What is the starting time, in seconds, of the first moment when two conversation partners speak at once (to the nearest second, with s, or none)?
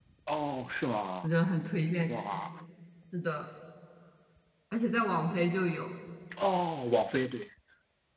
none